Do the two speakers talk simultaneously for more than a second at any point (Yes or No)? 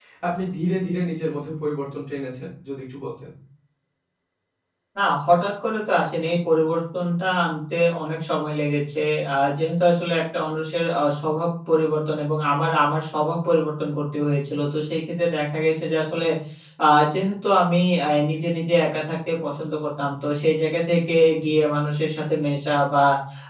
No